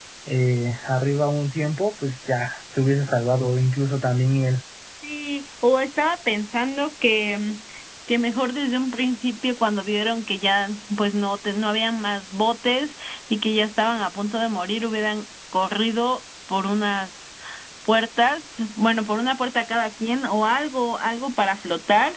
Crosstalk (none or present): none